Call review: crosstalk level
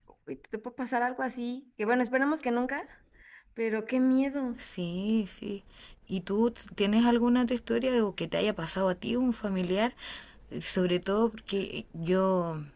none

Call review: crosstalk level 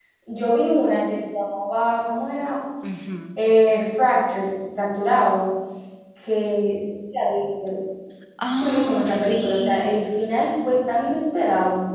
present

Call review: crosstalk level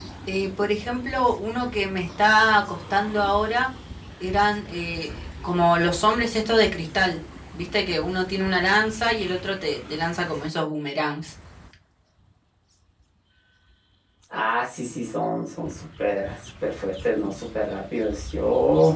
none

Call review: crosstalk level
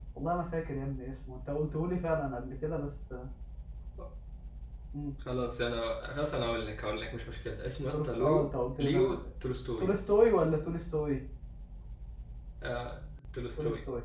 present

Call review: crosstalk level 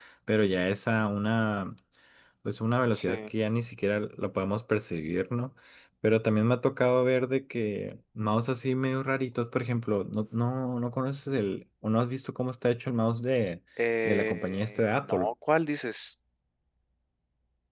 present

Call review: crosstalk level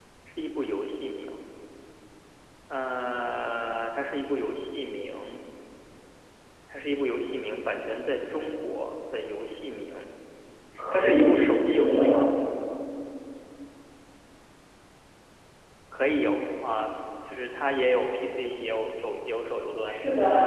present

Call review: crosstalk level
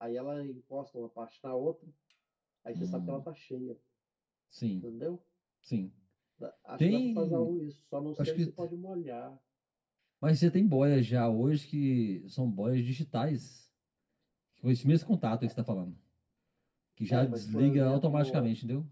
present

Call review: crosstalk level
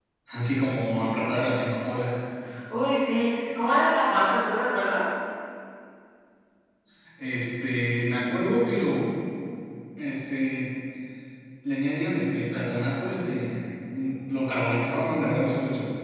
none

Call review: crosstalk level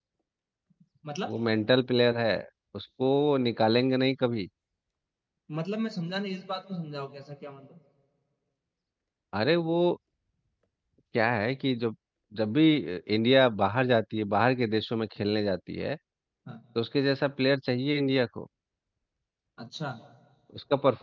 none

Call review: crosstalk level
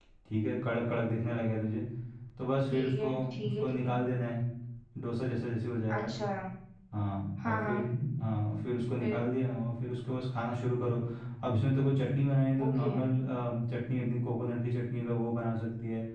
present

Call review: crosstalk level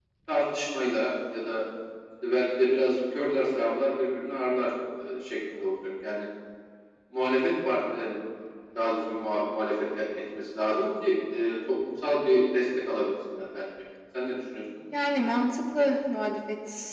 none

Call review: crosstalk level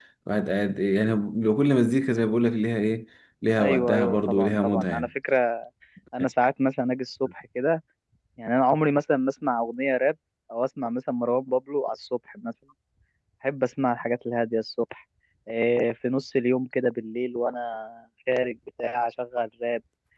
present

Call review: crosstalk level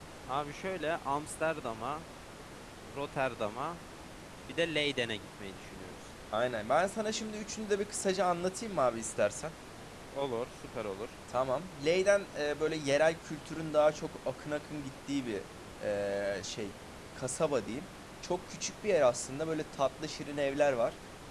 none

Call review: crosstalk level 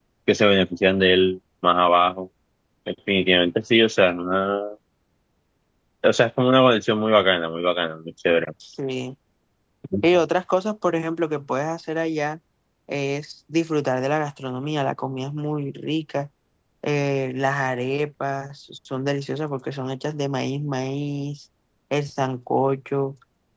none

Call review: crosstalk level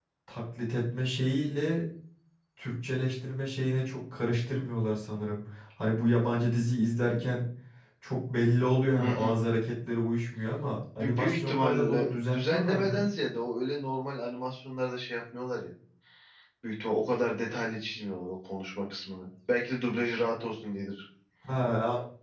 present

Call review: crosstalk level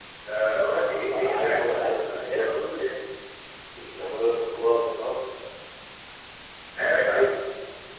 present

